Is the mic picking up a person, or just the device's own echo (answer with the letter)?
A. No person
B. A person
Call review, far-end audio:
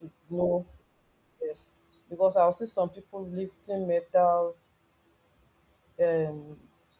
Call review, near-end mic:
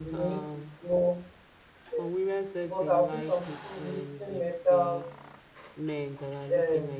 B